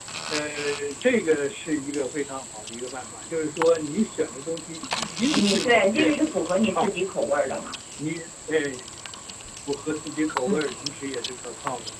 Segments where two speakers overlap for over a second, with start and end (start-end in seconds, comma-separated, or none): 5.3-7.0